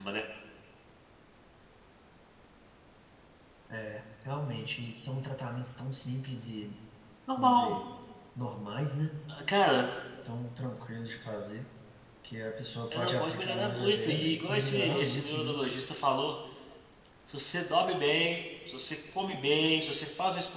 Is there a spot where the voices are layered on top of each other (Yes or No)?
Yes